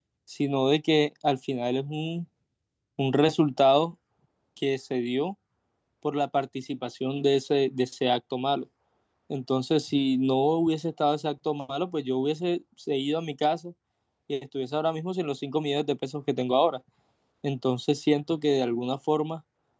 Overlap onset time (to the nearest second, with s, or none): none